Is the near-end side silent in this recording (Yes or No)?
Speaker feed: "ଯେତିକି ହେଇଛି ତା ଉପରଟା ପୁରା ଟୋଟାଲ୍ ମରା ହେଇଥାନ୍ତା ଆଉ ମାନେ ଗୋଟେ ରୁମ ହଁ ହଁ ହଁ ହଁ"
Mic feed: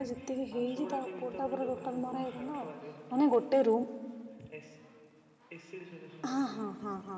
No